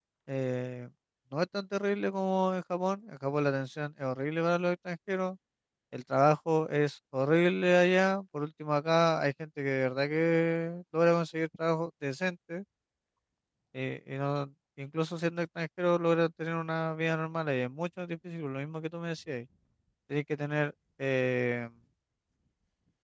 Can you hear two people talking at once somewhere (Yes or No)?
No